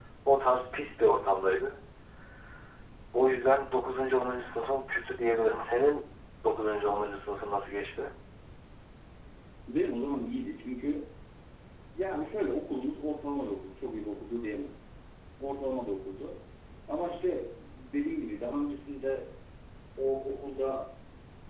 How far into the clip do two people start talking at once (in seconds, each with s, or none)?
none